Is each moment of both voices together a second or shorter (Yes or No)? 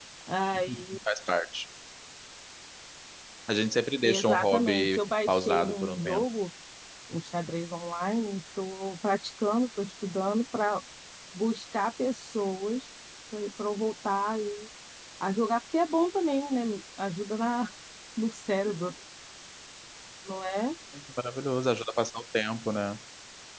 No